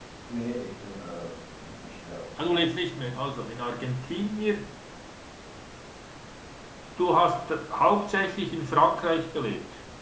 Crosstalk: none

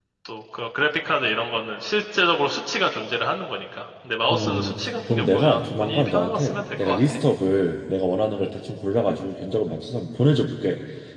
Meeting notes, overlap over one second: present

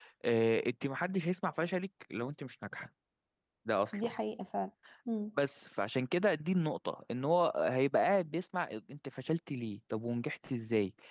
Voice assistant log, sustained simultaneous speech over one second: none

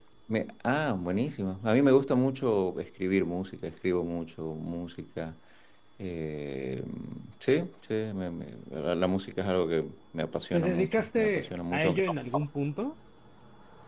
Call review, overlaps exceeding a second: present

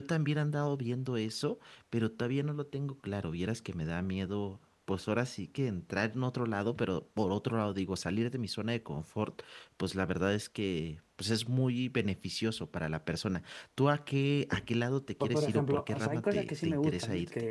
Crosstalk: present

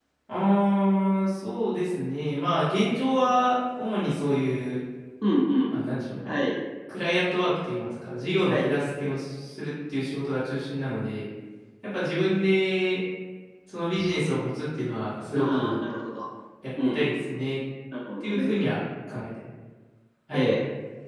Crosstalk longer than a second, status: none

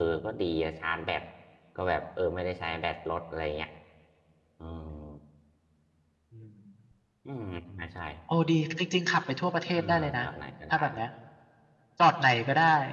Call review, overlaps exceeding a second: none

